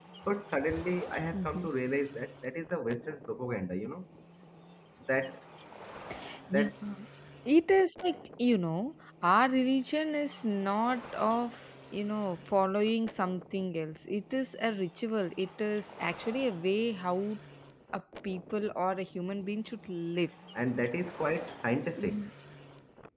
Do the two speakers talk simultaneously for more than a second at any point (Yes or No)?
No